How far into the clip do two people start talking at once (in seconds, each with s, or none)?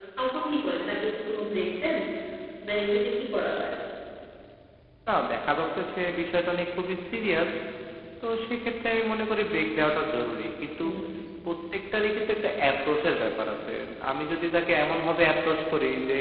none